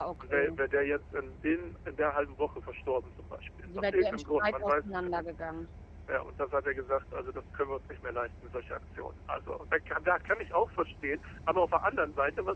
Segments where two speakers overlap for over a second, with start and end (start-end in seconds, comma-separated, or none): 3.7-5.3